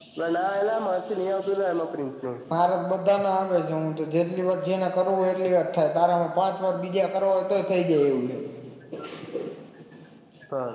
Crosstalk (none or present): none